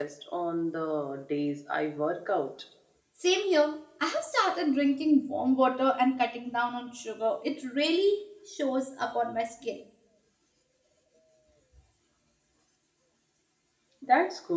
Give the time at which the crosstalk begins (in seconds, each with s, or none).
none